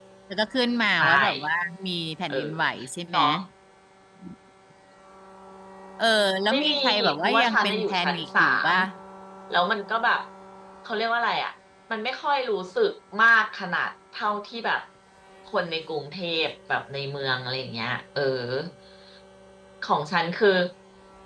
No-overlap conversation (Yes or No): No